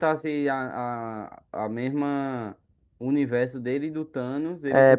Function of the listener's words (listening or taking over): taking over